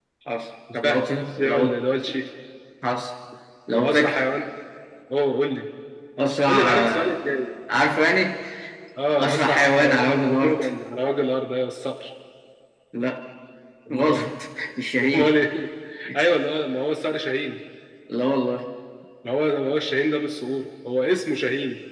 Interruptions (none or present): present